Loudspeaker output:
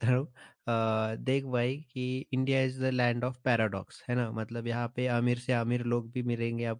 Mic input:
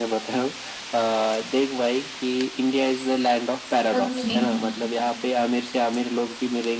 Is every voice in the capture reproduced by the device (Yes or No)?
No